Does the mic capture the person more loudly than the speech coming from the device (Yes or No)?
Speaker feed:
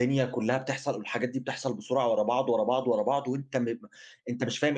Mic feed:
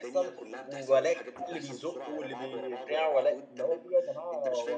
Yes